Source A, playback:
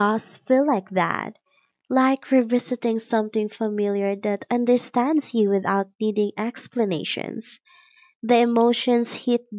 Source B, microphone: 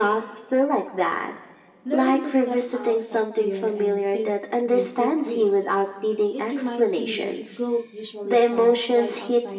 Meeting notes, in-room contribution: present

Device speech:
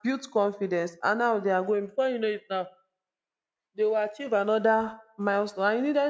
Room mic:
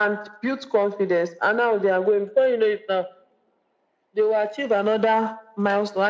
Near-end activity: none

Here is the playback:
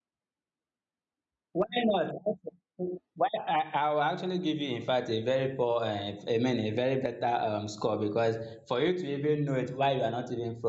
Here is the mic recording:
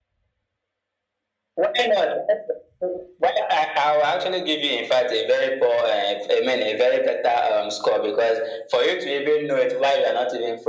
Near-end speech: none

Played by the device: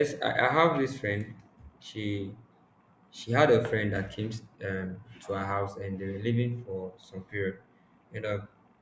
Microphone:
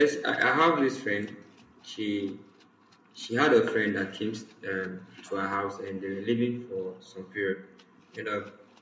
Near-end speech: none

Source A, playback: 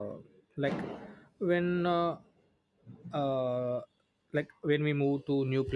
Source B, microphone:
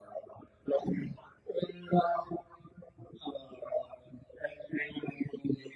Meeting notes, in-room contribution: none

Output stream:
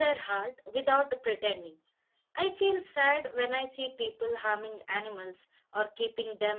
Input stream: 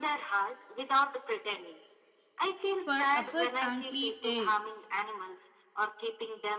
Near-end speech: present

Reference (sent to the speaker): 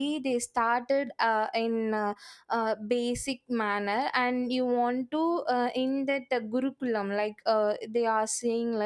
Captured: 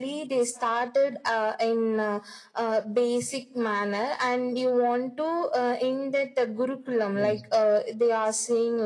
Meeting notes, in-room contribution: present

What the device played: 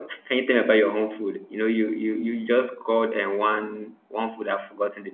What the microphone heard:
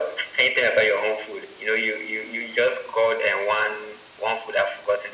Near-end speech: none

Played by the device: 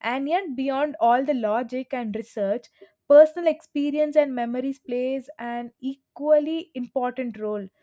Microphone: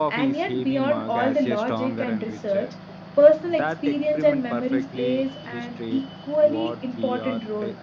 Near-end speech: present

